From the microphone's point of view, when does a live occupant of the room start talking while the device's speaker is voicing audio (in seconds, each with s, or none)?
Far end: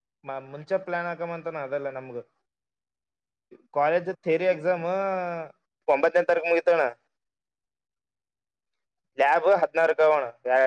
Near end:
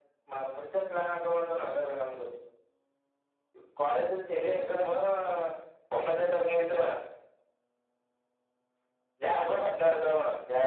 none